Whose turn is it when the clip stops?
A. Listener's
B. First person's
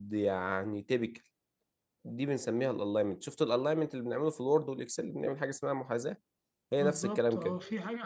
A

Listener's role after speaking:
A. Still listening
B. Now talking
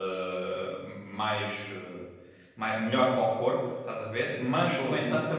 A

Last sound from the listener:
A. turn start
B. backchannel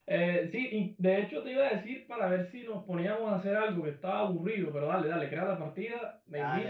A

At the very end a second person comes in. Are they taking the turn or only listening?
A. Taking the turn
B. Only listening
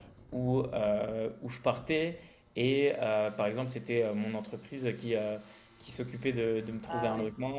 B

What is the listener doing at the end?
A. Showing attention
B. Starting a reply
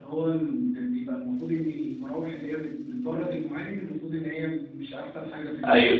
B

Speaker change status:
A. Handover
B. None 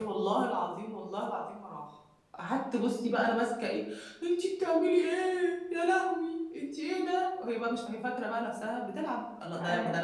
B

